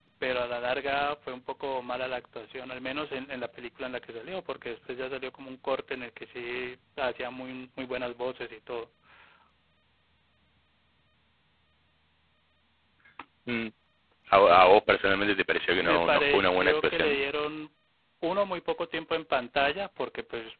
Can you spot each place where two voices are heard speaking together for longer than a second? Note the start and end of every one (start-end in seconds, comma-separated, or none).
15.8-17.2